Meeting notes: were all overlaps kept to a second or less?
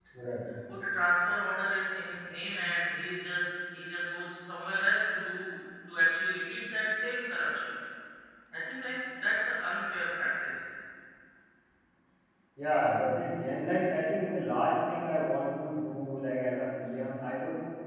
Yes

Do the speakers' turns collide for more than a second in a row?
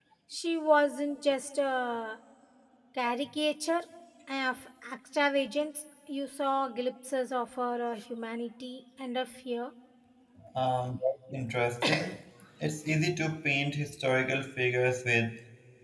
No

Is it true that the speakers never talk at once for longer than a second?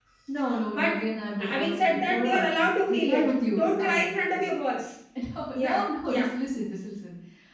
No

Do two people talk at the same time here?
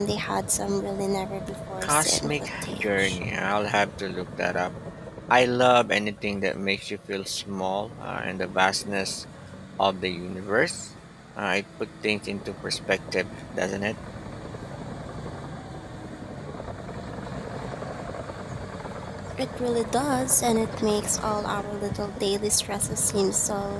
Yes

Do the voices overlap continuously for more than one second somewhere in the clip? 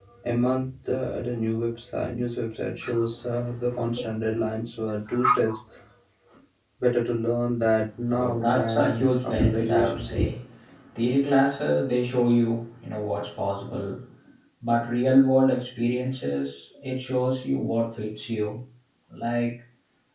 Yes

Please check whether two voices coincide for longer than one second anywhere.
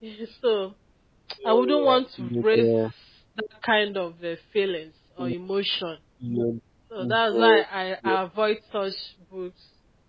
Yes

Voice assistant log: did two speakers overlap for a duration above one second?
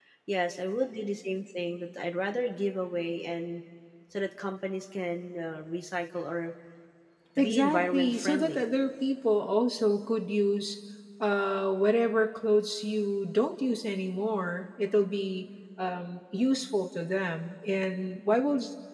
Yes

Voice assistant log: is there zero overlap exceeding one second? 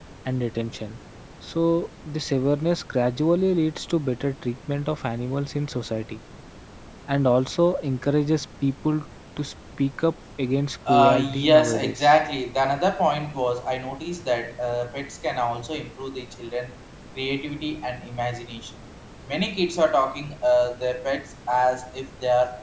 No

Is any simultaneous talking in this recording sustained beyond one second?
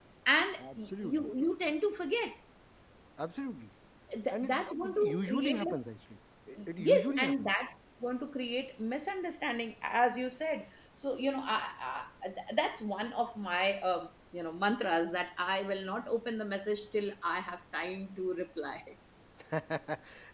Yes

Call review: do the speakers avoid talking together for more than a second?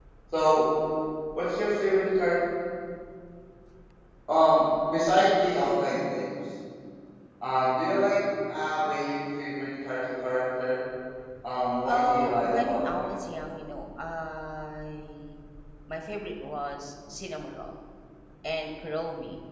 No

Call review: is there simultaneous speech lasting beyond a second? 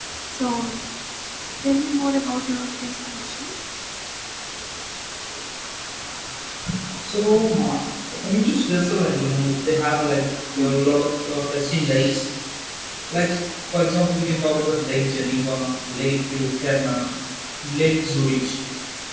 No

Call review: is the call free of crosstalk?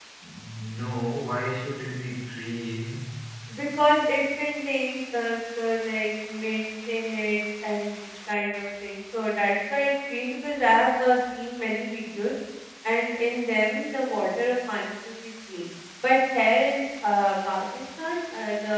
Yes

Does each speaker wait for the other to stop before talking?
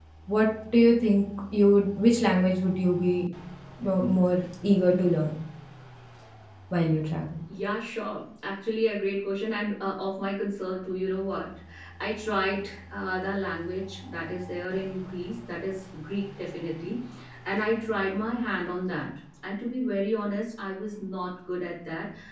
Yes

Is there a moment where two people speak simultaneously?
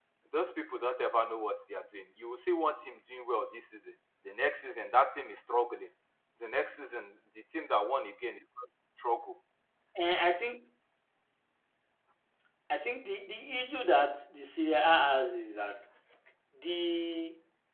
No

